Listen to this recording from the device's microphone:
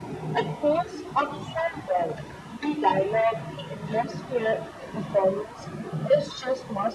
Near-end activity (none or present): none